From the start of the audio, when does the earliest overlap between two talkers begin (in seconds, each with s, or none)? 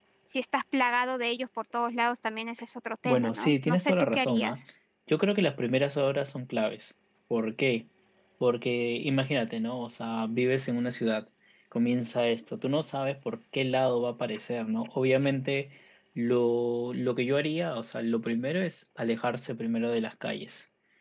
3.0 s